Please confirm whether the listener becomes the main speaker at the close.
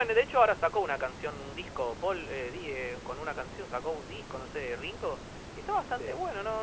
No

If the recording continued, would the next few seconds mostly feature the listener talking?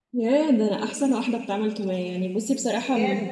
No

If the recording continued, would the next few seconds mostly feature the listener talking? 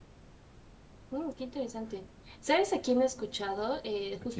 No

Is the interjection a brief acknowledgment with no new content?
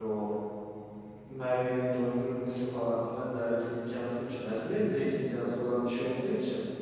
Yes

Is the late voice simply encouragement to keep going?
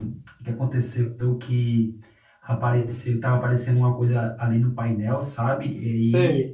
Yes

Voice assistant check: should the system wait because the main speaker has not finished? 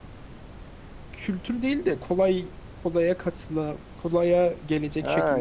No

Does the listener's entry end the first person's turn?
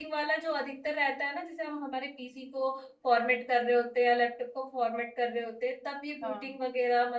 No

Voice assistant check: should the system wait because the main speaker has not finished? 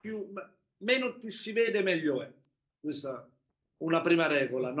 Yes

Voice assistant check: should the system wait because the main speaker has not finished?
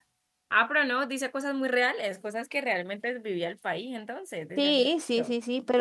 No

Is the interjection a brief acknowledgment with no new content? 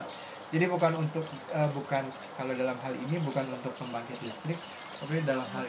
Yes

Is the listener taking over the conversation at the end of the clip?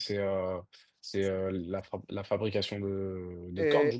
Yes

